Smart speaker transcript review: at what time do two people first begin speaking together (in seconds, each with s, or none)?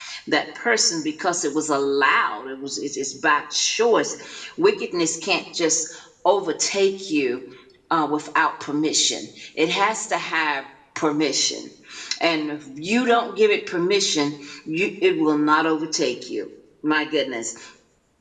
none